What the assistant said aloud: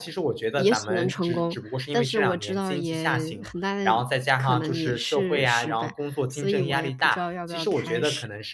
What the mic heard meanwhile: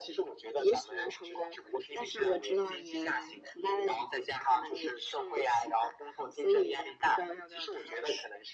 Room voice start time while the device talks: none

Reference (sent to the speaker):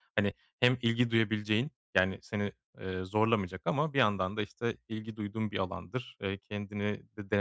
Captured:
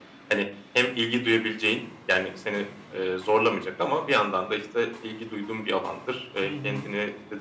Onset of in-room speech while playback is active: 6.4 s

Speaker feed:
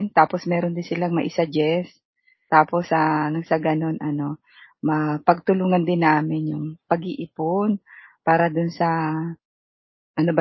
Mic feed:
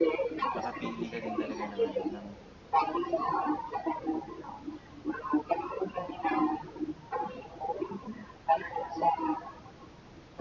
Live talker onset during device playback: 0.5 s

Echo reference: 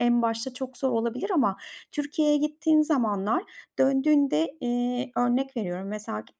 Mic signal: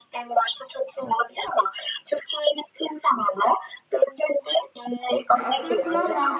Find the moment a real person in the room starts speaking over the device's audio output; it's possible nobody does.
5.3 s

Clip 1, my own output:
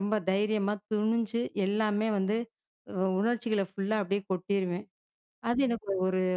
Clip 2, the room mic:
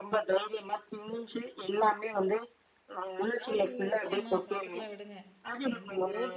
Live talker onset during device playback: 3.2 s

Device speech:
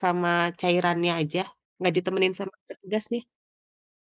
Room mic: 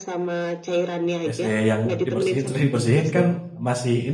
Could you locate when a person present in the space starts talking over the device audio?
1.2 s

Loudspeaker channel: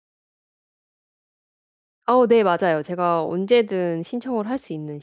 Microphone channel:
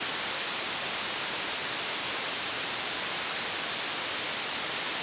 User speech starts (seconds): none

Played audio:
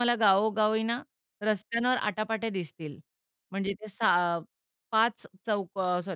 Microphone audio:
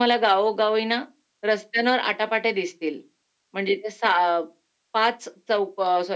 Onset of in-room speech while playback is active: none

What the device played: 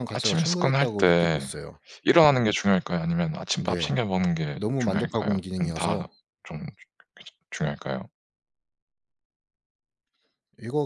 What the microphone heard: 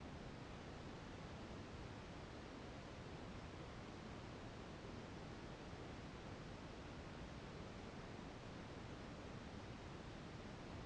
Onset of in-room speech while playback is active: none

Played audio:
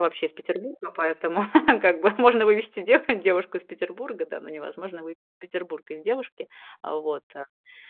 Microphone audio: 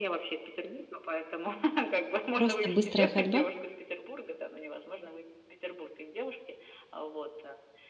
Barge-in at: 2.4 s

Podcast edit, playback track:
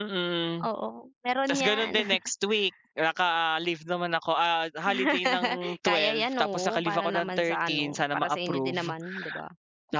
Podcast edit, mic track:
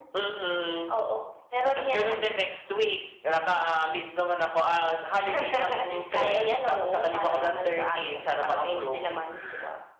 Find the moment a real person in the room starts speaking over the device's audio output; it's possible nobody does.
none

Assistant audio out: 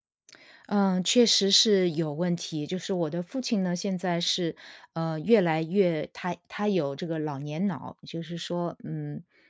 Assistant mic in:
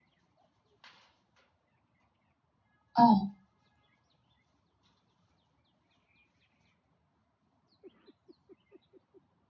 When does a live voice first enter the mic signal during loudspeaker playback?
3.0 s

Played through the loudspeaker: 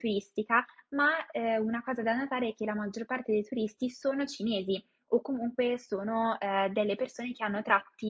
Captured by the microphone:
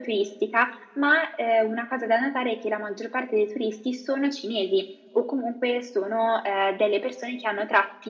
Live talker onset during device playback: none

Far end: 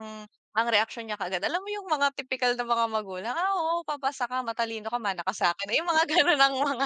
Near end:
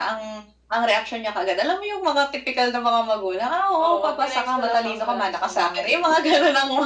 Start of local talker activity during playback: 3.8 s

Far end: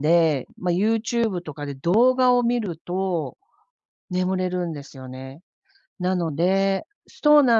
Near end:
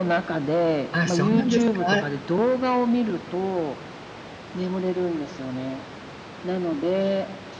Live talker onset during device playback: 0.9 s

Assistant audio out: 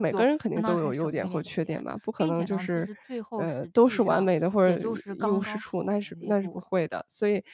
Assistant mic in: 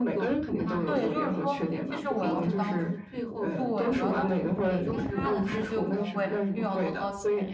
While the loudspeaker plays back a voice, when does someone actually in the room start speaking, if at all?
0.8 s

